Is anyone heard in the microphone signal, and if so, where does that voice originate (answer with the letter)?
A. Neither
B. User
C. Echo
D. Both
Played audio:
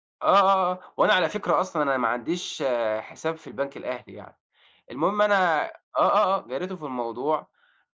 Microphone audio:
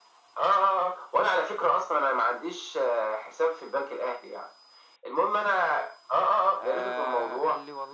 D